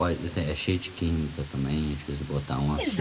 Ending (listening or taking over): taking over